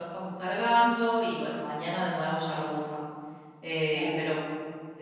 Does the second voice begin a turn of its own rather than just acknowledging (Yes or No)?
No